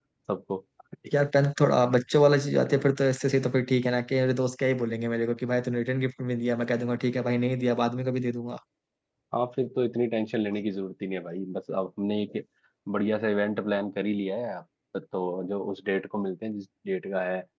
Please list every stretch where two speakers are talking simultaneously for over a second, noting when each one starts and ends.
none

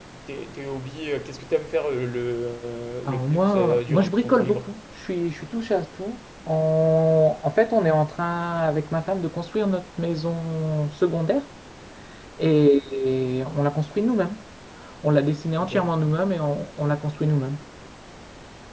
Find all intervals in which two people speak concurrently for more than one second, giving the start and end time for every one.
3.0-4.6

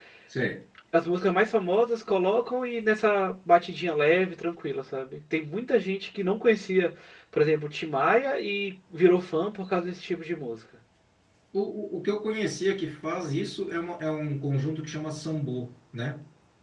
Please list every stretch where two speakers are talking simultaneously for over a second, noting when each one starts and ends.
none

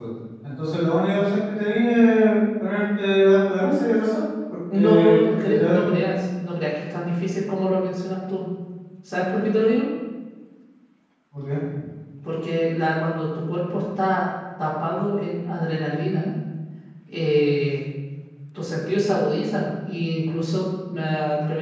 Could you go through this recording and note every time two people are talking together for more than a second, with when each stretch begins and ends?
4.7-6.2

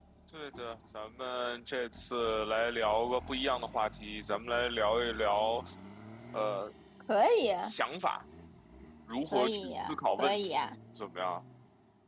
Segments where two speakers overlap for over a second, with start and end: 9.3-10.5

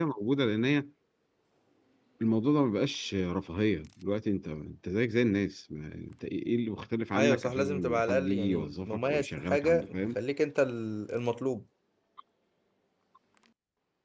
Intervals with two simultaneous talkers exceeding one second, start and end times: 7.2-9.9

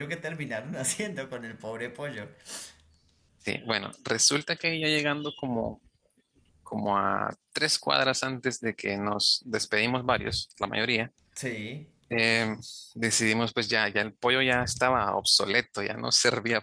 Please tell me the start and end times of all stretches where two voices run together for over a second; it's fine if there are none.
none

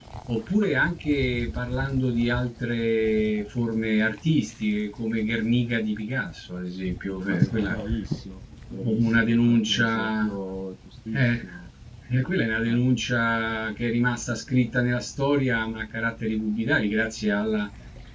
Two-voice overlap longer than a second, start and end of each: 8.8-10.3

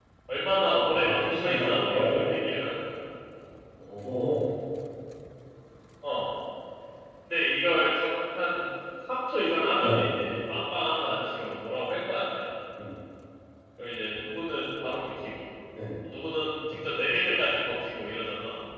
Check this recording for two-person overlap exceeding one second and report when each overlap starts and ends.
1.0-2.3

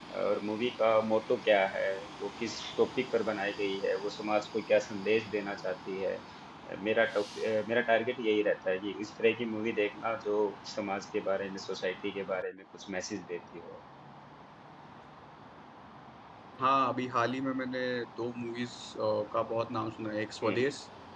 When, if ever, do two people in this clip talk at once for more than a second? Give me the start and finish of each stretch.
none

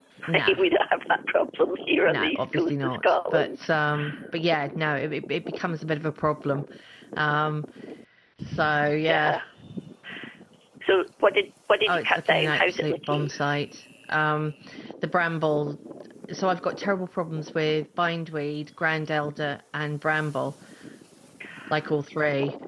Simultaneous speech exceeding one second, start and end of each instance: 2.0-3.5, 11.9-13.3

